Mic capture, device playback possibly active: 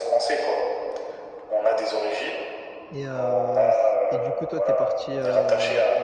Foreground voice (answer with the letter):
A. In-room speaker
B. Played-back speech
B